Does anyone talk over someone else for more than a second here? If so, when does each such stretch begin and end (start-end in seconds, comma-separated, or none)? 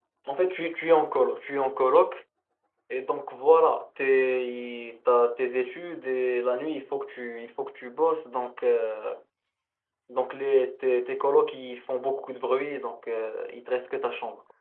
none